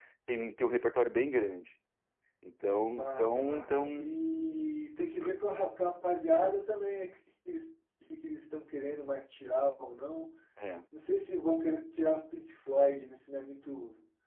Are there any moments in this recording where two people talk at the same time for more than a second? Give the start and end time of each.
2.9-4.1

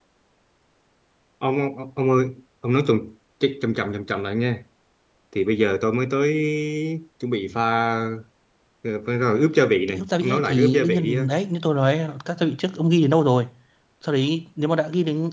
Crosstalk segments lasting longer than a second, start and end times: 9.9-11.3

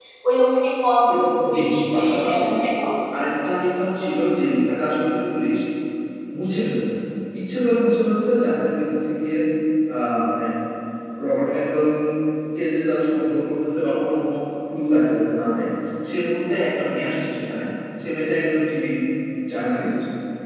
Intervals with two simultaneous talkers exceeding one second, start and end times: 1.1-2.5

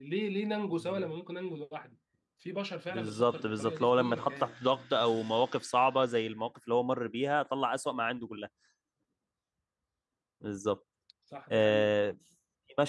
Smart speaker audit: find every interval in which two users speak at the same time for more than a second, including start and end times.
2.9-4.5

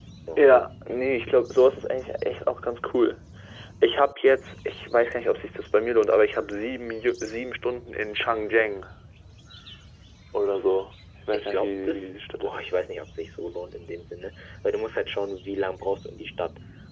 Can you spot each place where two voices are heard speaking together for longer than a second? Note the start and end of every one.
11.3-12.6

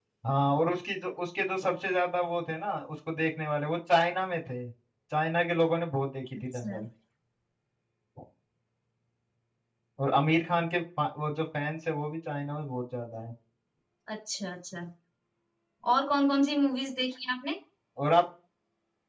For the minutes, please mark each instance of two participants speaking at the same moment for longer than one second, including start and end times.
none

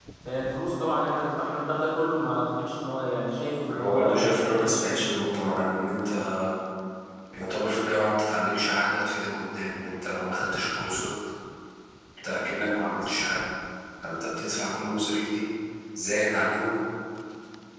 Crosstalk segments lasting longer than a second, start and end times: 3.7-5.0

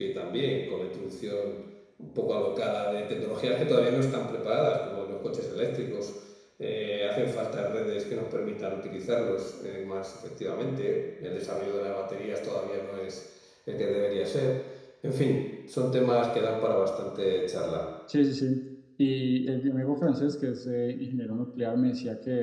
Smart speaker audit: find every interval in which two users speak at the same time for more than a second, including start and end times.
none

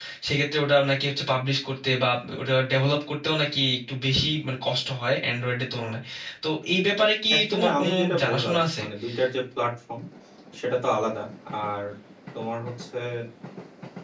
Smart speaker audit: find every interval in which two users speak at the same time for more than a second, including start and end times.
7.3-8.8

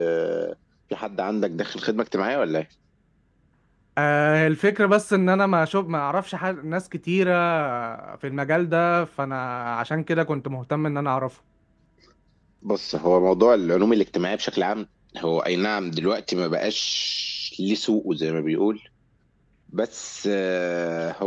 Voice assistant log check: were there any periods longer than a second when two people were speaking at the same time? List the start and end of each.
none

